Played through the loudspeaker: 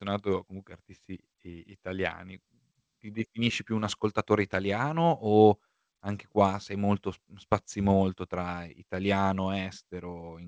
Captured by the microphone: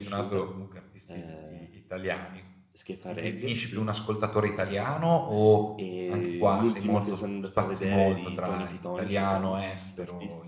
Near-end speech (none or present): present